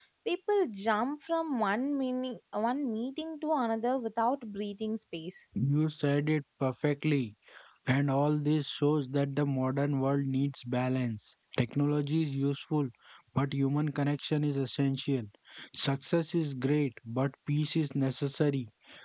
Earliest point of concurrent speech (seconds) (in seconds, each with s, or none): none